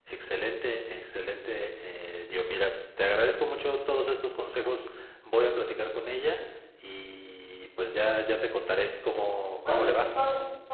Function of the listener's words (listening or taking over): taking over